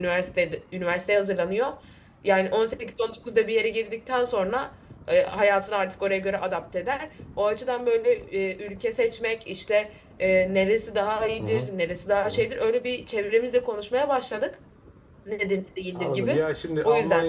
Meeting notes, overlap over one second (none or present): none